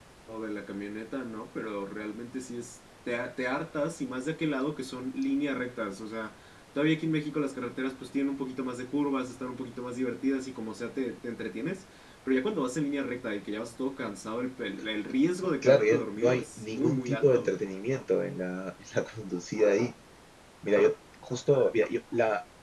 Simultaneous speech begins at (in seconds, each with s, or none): 15.6 s